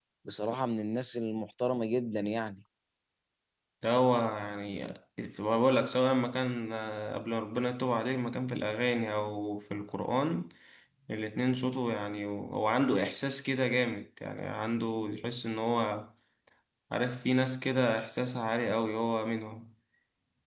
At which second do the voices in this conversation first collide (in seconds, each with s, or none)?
none